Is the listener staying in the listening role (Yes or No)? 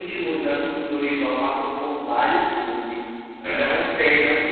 Yes